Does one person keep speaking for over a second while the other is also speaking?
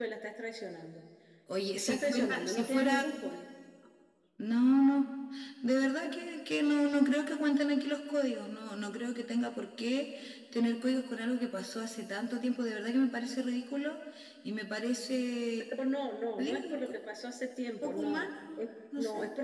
Yes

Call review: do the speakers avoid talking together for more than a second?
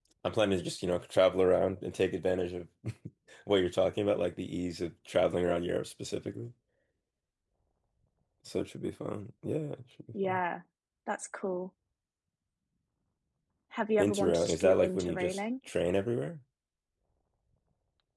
No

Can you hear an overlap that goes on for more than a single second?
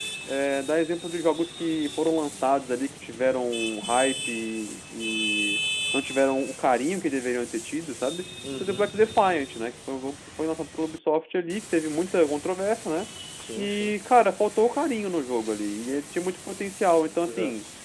No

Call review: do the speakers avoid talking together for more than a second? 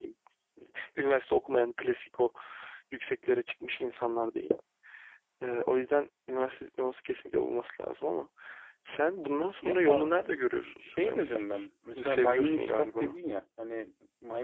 No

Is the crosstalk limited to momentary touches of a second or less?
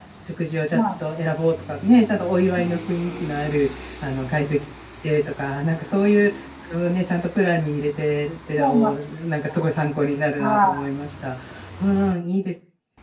Yes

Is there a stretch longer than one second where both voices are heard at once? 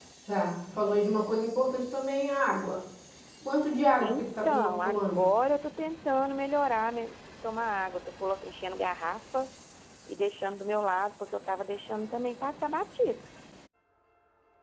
Yes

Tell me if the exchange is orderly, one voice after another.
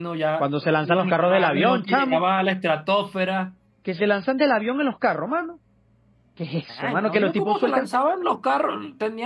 No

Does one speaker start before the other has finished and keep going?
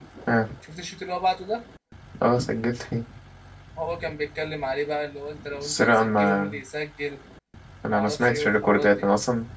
Yes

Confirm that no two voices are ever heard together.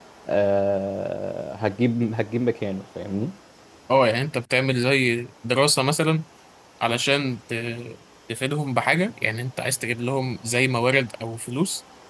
Yes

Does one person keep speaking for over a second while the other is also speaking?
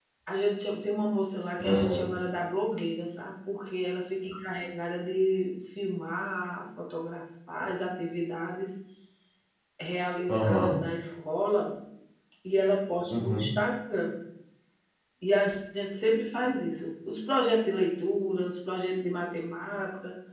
No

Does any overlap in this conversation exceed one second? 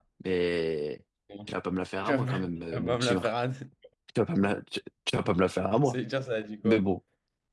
Yes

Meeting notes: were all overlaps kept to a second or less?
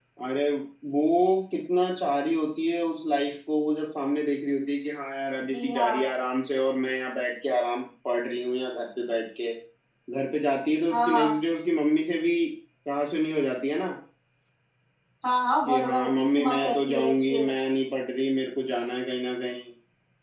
No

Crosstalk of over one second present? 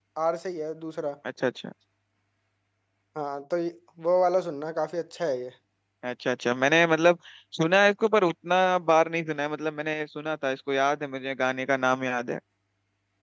No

